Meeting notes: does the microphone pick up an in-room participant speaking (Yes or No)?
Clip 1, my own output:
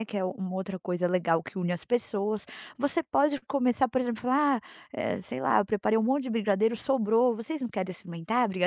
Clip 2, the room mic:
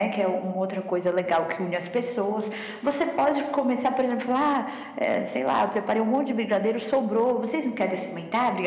No